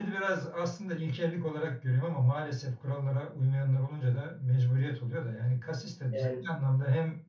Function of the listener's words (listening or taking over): listening